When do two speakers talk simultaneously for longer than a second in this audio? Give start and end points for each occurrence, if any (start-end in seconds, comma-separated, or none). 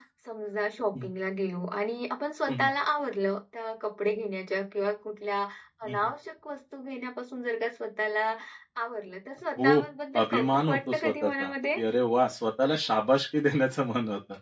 10.2-11.8